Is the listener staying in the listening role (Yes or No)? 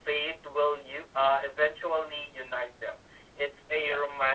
Yes